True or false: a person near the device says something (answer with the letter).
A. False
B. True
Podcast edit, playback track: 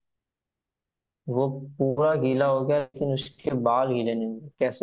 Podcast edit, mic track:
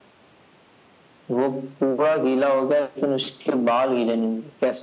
A